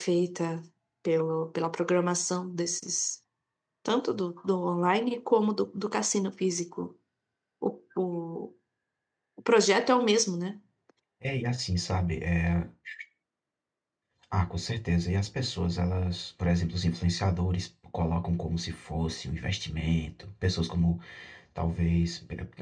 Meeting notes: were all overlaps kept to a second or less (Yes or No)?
Yes